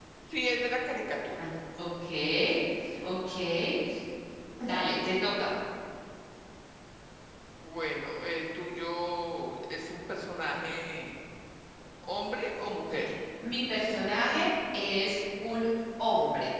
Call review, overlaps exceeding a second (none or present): none